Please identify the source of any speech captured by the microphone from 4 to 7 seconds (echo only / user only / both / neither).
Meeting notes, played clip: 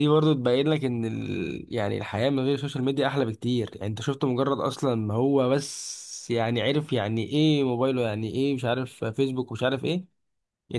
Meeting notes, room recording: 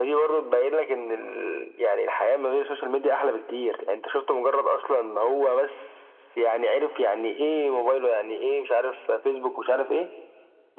echo only